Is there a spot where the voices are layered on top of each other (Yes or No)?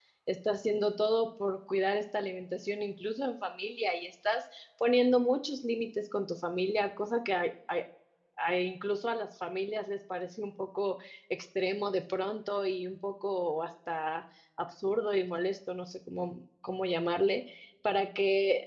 No